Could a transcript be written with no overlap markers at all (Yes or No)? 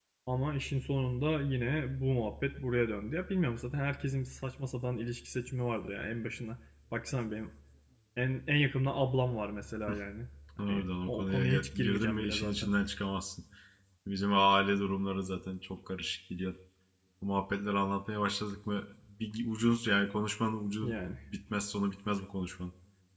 No